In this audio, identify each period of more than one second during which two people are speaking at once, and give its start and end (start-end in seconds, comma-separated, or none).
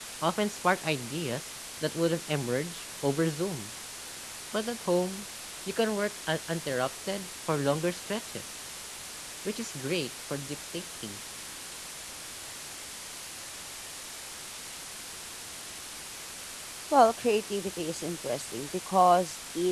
none